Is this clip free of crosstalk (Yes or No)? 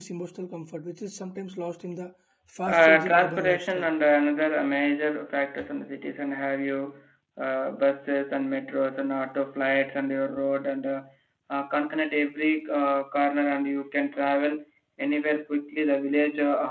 No